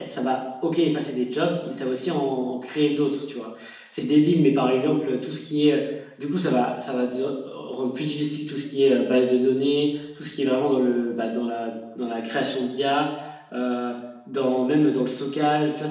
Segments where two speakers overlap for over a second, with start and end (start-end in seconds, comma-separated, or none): none